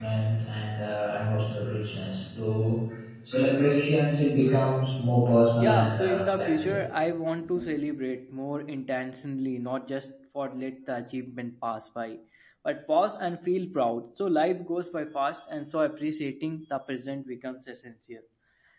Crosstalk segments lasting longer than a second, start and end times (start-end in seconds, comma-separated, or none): 5.6-6.8